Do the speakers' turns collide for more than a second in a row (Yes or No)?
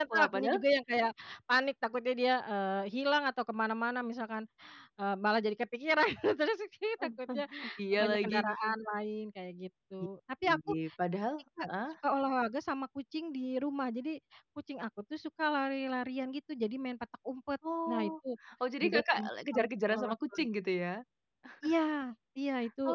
Yes